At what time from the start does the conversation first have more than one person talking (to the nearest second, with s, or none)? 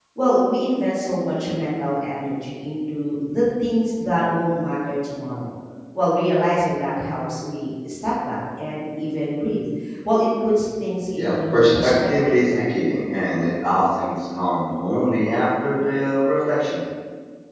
11 s